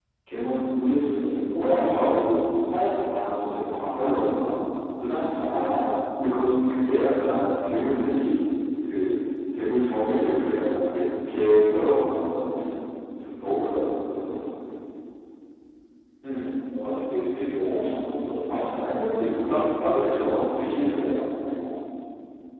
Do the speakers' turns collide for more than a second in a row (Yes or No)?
Yes